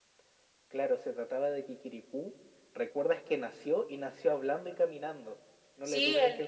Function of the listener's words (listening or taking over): taking over